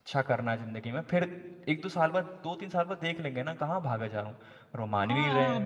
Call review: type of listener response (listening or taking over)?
taking over